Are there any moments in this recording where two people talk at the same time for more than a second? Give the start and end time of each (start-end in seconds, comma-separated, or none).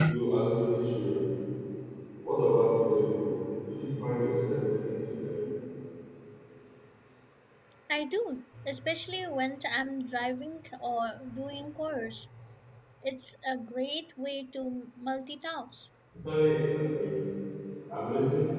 none